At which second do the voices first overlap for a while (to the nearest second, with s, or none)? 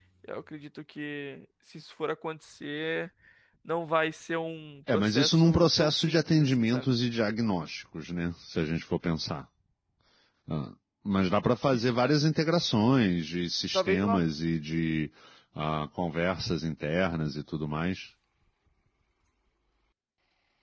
5 s